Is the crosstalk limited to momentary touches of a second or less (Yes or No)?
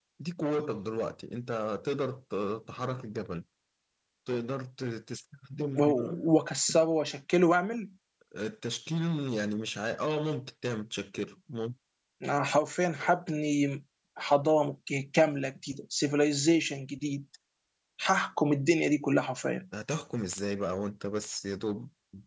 Yes